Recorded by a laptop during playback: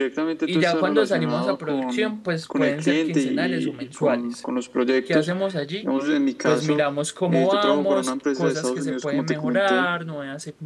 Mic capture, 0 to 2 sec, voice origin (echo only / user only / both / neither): both